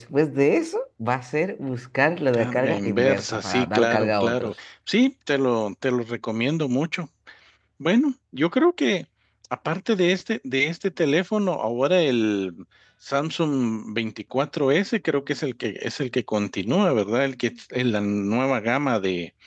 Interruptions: present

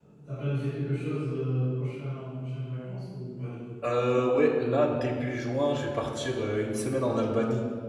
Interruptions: none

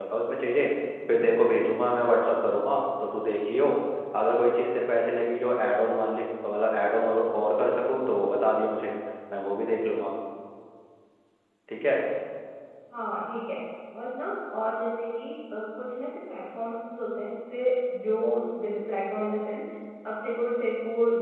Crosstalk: none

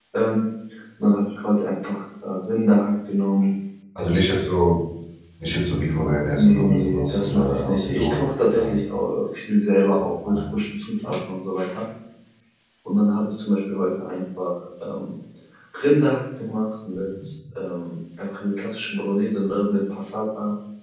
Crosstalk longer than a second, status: present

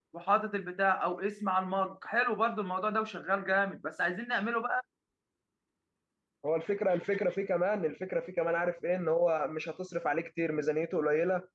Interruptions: none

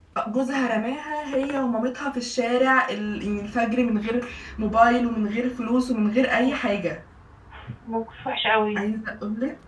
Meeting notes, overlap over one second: none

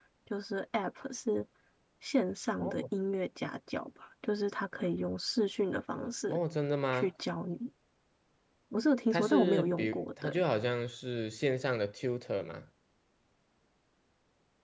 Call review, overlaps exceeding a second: present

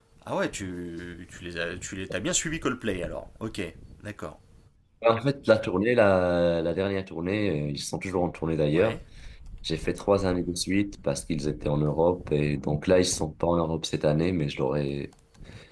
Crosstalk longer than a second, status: none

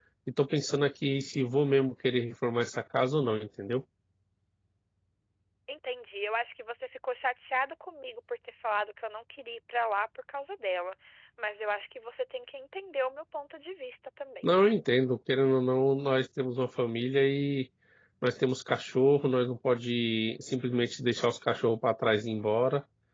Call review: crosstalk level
none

